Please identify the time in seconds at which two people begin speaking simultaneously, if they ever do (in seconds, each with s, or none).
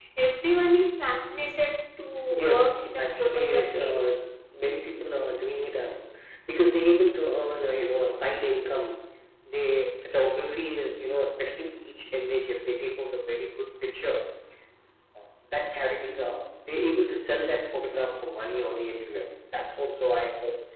2.5 s